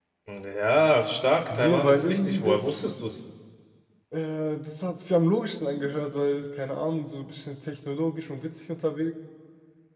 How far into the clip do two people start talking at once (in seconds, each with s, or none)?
1.5 s